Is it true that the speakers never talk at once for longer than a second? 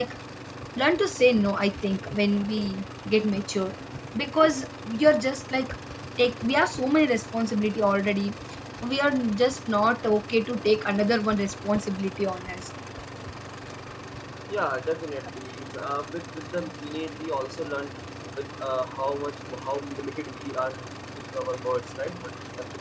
Yes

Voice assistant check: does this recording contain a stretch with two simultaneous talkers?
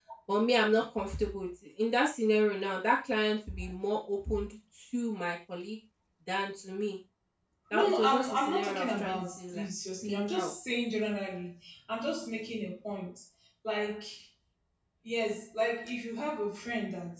Yes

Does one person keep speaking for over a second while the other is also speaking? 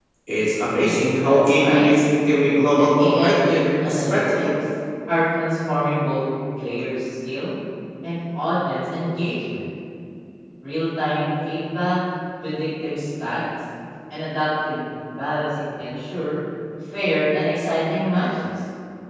Yes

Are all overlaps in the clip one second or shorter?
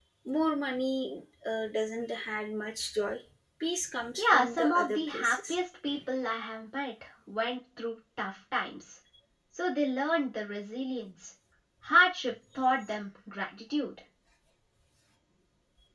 No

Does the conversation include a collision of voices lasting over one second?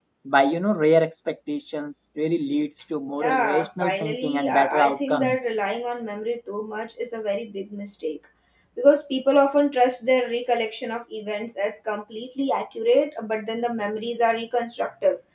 Yes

